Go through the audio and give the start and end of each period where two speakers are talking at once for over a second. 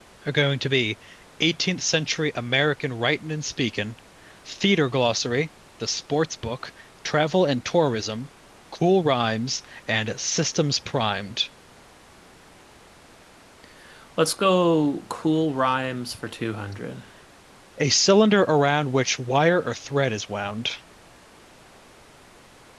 none

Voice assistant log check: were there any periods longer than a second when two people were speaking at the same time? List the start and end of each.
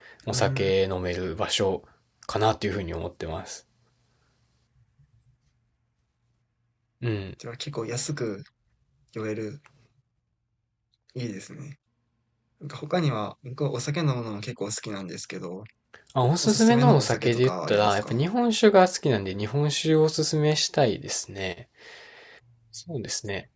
16.4-18.2

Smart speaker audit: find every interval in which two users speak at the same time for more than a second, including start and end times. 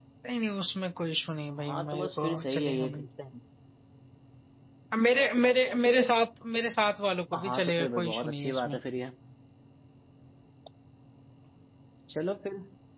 1.6-3.1, 7.3-8.8

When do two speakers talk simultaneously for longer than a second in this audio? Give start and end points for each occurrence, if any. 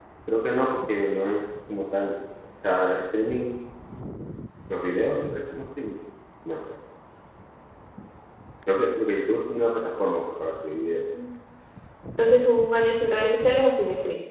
none

